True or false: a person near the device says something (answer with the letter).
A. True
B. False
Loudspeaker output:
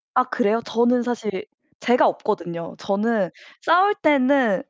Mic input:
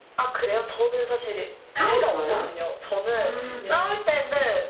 A